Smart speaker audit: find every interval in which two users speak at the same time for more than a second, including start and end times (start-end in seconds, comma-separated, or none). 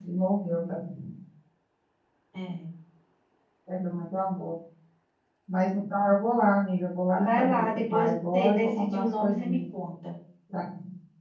7.2-9.6